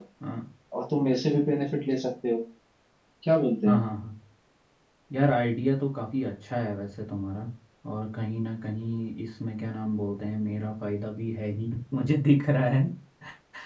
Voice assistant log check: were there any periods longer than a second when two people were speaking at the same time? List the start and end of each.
none

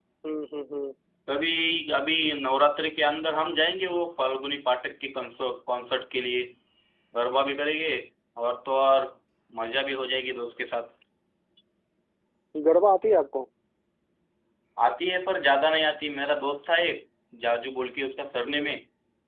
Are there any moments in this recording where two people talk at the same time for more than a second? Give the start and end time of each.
none

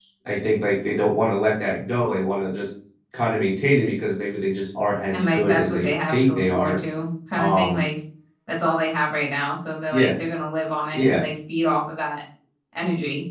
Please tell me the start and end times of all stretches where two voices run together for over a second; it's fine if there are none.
5.1-6.8

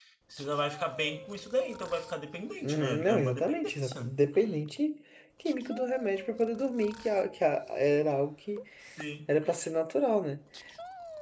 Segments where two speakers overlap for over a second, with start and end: 2.6-4.1

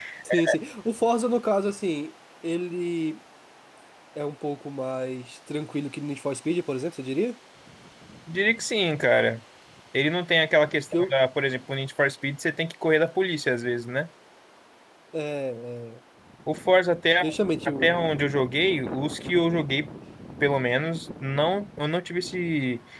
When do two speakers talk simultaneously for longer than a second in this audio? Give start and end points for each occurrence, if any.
none

